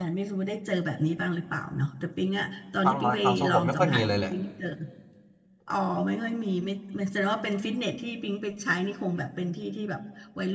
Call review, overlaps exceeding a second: present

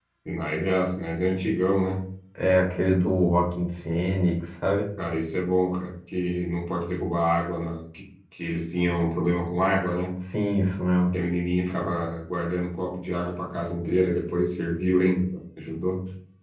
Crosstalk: none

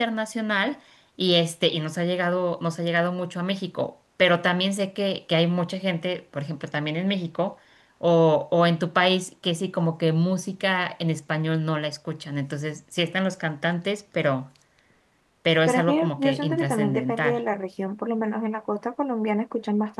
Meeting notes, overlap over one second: present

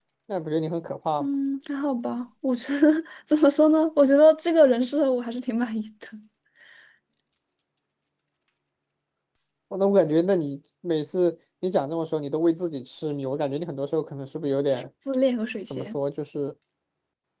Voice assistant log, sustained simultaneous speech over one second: none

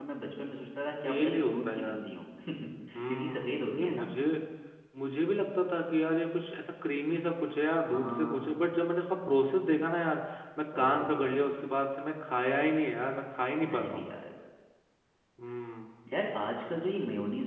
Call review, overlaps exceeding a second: present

